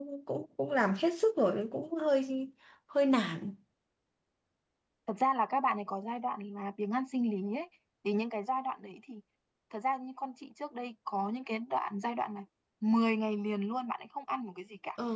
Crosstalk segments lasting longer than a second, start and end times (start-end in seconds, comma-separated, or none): none